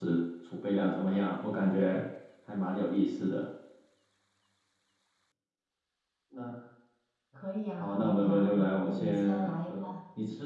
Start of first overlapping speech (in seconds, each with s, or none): 7.8 s